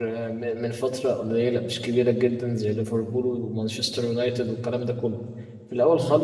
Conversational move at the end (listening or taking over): listening